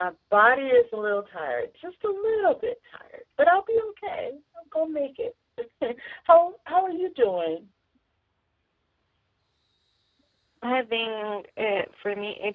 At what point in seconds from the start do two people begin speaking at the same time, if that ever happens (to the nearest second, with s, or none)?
none